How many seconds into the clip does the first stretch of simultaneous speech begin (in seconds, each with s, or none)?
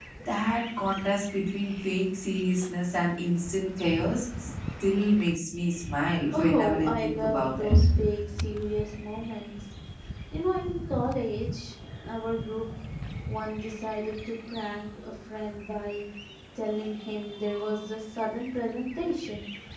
6.3 s